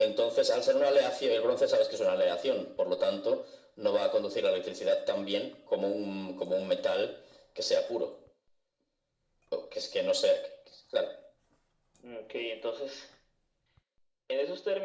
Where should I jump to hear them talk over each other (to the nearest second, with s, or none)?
none